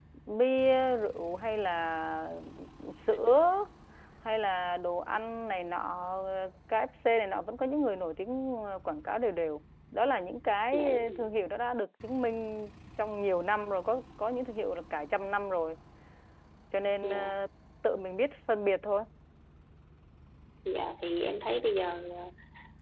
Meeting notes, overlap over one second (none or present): none